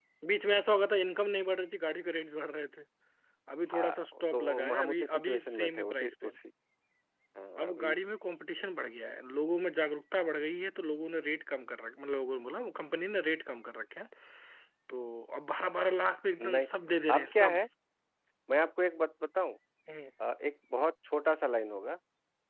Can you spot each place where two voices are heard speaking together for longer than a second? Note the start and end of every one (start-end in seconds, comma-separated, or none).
3.7-6.3